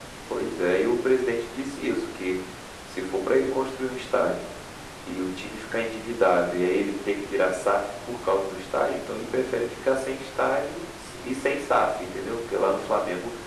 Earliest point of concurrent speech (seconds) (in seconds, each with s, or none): none